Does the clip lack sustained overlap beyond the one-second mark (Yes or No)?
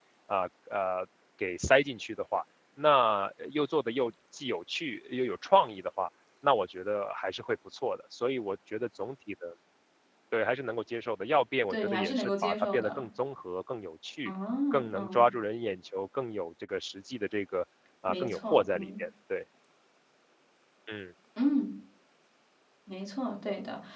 No